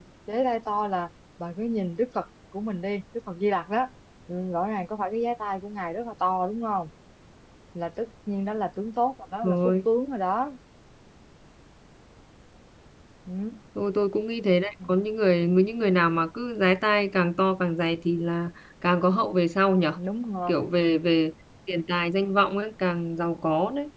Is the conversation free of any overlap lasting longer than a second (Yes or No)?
Yes